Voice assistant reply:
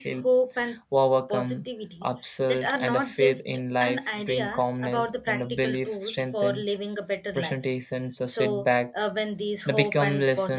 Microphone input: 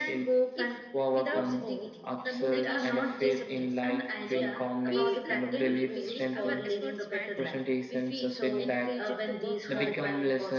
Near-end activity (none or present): present